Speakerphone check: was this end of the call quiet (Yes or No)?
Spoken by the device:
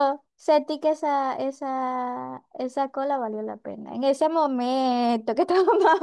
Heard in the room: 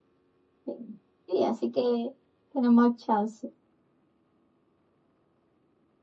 No